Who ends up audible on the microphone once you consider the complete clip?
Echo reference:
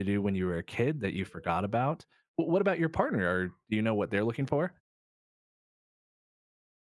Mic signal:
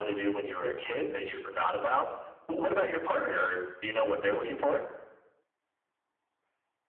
echo only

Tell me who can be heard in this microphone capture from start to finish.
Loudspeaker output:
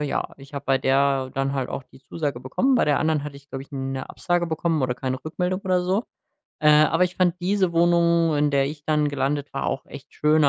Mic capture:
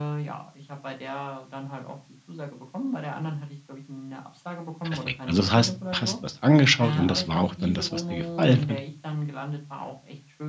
both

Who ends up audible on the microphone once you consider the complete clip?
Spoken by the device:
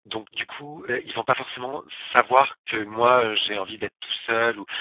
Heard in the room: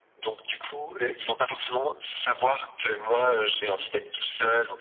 echo only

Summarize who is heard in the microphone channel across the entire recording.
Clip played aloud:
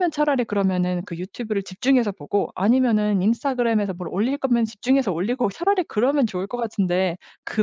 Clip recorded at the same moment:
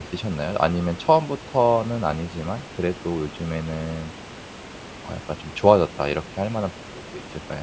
user only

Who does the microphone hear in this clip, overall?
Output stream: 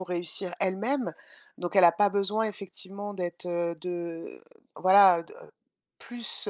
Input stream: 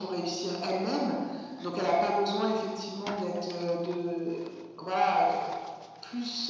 echo only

